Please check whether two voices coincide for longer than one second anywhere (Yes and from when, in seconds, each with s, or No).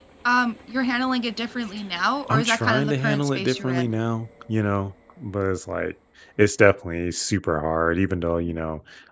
Yes, from 2.3 s